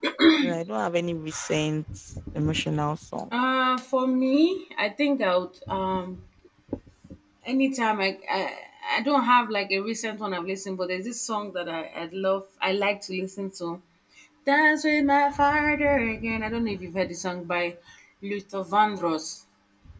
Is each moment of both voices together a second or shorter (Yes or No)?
Yes